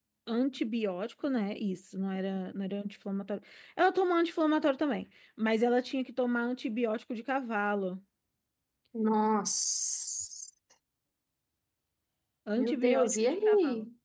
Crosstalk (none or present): present